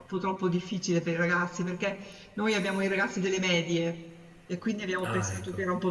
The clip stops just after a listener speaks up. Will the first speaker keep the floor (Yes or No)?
Yes